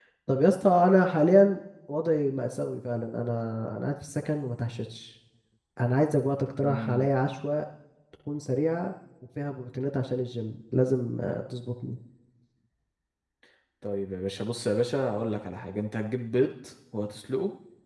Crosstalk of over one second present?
No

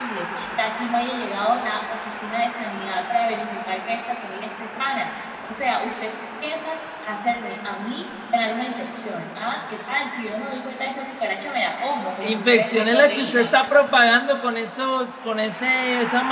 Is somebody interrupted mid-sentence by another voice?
Yes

